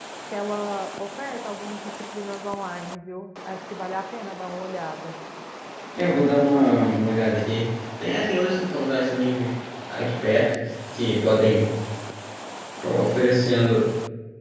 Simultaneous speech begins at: none

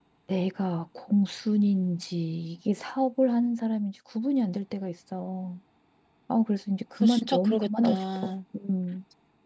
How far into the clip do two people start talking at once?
7 s

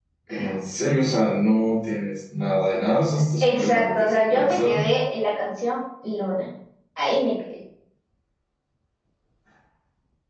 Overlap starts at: 3 s

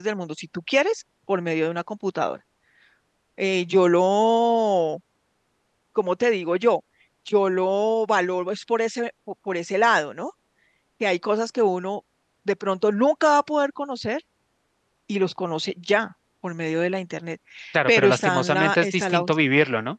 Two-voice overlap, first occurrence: 18 s

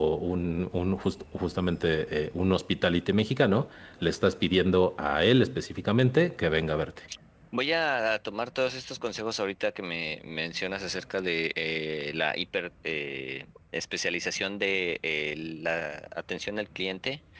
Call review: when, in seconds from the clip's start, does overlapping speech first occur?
none

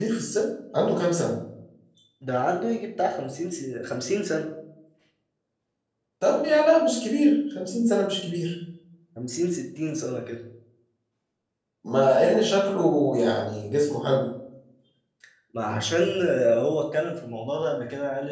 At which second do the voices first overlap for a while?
none

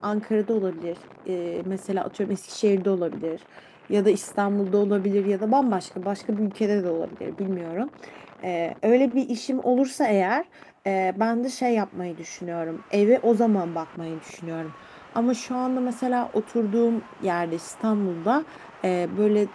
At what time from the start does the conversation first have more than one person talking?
none

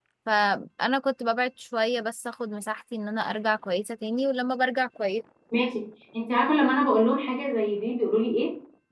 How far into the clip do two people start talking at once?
none

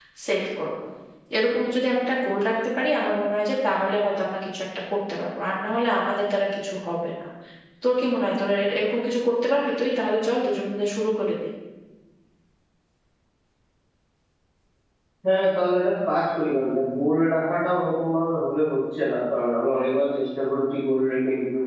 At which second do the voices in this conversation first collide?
none

